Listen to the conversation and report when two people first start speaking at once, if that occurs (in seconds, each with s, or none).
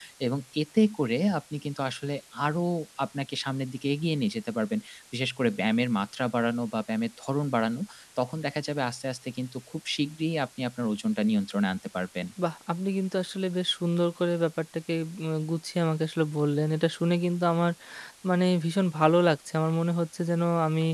none